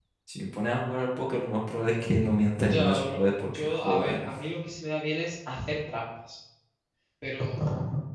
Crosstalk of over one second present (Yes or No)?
Yes